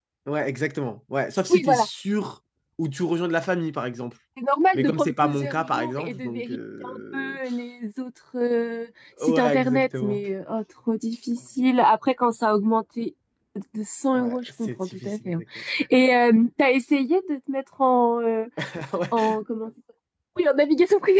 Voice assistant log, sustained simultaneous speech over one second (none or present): present